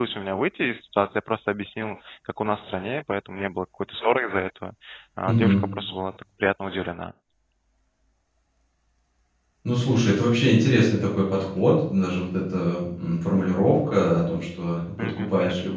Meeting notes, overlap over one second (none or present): none